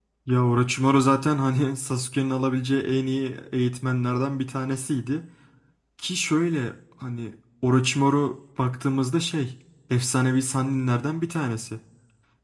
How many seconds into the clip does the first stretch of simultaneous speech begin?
none

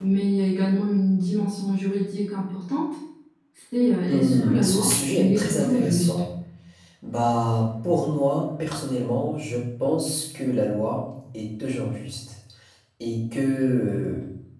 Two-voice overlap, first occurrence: 4.1 s

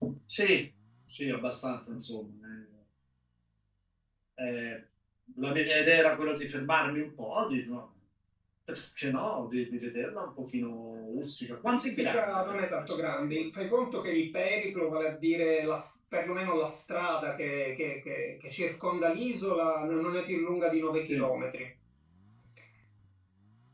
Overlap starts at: 11.7 s

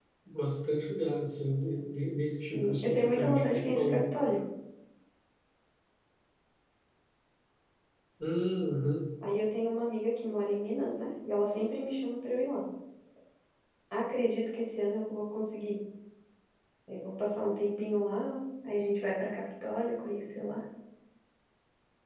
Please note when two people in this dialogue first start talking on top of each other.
2.5 s

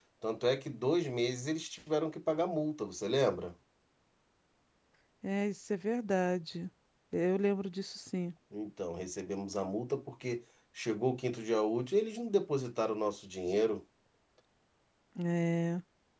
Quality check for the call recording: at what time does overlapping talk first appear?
none

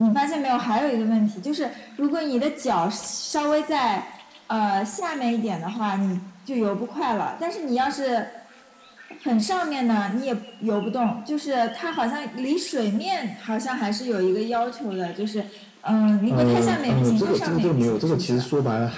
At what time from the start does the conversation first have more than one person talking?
16.3 s

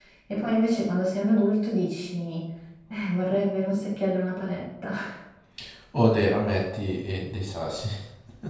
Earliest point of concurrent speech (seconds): none

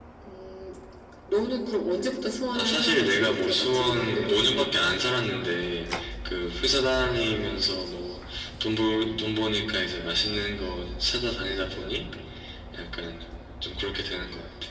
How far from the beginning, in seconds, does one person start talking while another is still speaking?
2.5 s

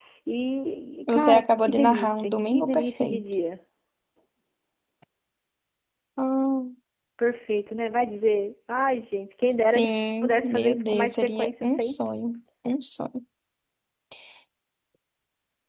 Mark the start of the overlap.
1.1 s

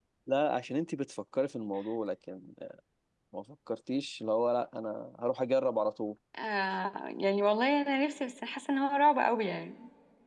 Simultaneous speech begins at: none

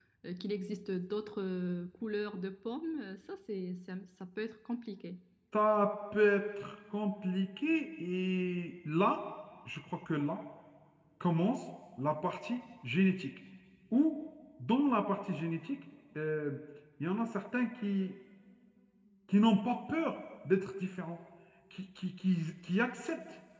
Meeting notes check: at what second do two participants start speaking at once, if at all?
none

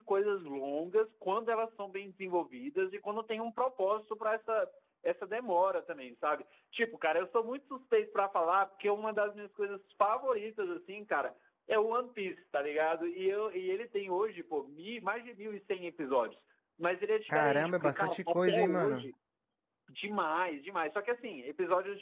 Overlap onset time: 17.3 s

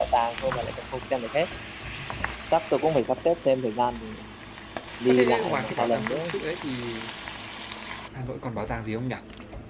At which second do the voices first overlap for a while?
5.1 s

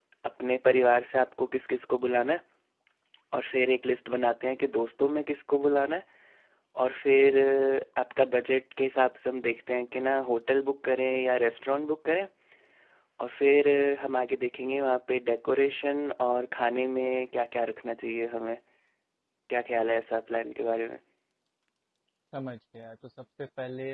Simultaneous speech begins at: none

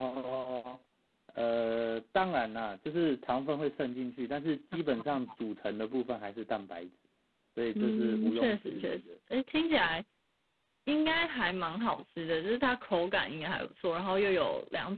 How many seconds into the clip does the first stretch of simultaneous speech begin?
7.8 s

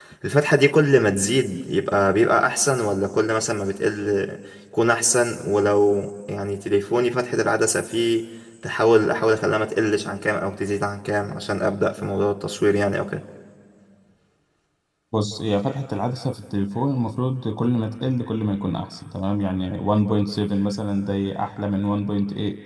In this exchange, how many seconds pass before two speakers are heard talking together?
none

